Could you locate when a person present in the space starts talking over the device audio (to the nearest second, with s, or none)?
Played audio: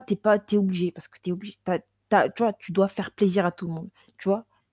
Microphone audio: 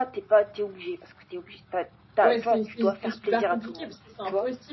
2 s